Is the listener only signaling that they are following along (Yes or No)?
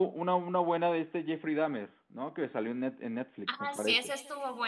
No